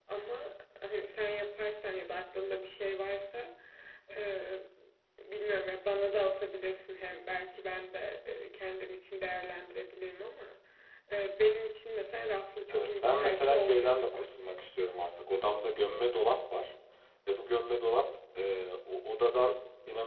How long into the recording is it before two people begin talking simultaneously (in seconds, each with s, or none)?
12.7 s